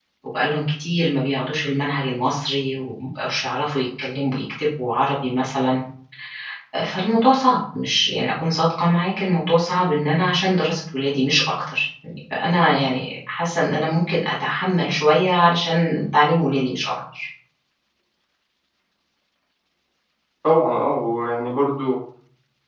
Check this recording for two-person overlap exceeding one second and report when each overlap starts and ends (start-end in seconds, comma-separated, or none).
none